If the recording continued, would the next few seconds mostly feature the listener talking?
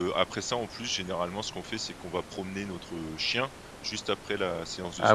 Yes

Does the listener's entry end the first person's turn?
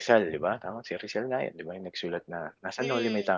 Yes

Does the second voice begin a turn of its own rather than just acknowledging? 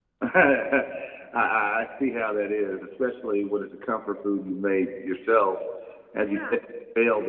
No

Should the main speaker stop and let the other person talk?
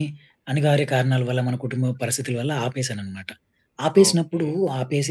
No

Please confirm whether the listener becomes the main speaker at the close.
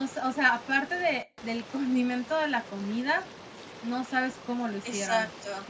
Yes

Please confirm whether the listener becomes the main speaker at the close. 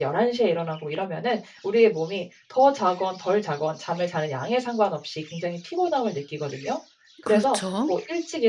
No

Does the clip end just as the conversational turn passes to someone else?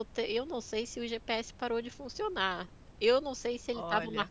No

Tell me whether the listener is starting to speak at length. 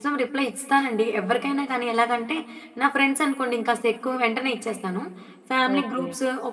No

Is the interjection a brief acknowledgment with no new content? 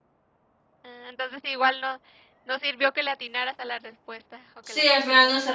No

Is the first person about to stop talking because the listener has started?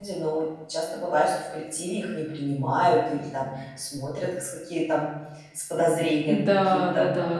Yes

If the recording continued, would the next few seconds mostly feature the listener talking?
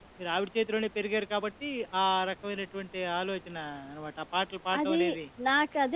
Yes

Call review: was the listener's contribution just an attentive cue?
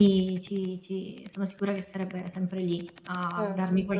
Yes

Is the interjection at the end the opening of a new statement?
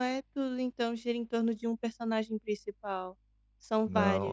Yes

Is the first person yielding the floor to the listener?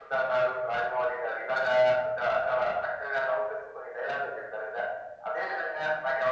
No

